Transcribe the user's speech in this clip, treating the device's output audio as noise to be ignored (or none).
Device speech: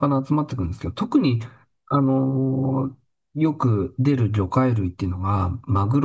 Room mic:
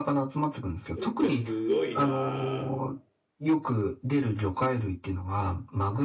いや、すごいなあ